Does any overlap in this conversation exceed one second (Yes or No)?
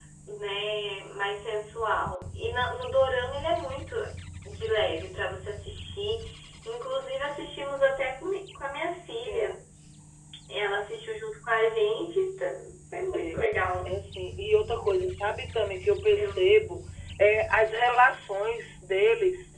No